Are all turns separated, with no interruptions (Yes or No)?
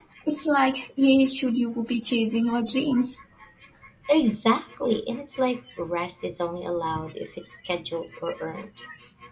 Yes